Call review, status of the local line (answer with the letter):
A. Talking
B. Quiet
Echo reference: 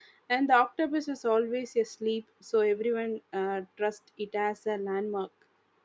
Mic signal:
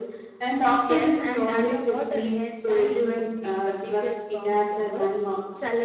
A